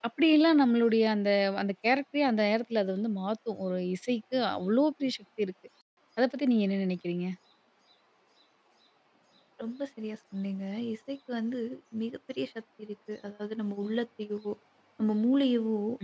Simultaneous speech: No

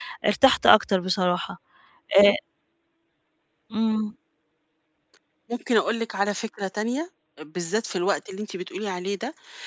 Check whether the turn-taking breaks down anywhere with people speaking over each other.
No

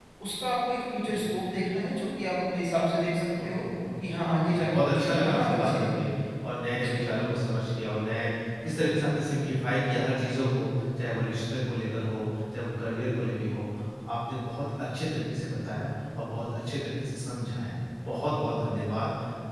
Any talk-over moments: Yes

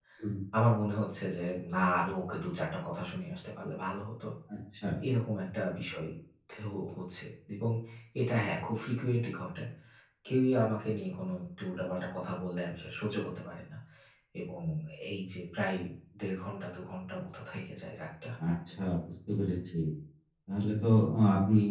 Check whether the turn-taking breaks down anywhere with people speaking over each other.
No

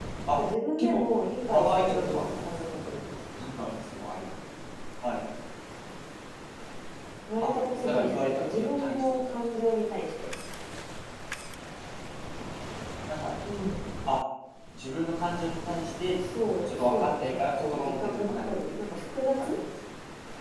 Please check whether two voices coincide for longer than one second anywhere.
Yes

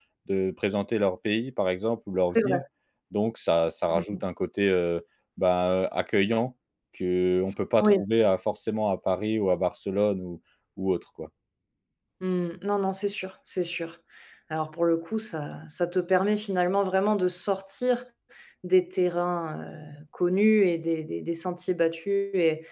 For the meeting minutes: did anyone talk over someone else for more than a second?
No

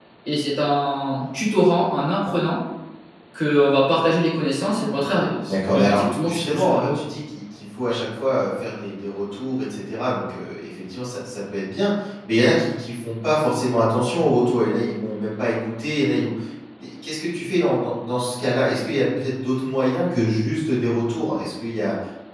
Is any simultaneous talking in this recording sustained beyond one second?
Yes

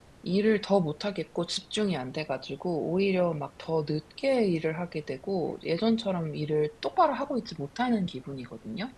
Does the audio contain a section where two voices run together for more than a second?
No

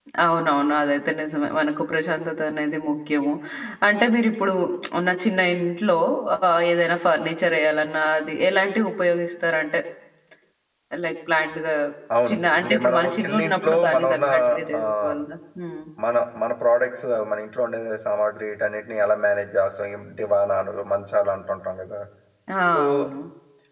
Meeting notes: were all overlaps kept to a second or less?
No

